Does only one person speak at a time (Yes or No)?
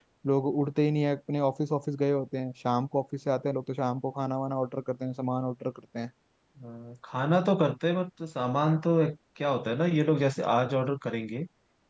Yes